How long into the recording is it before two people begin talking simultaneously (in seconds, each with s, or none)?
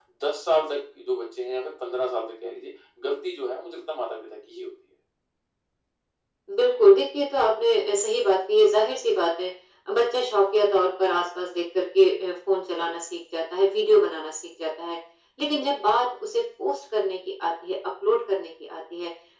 none